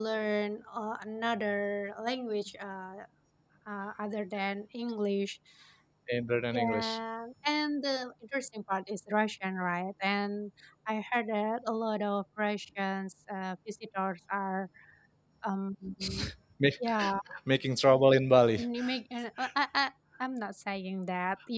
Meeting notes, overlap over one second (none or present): none